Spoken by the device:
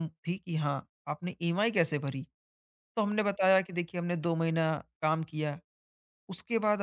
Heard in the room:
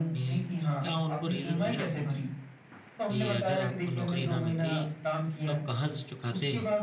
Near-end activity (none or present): present